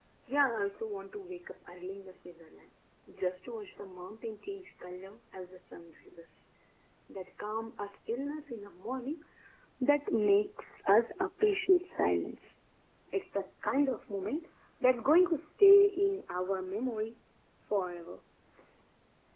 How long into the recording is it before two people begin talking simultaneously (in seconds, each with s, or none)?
none